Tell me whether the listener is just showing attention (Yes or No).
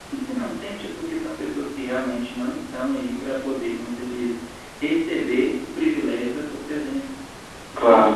No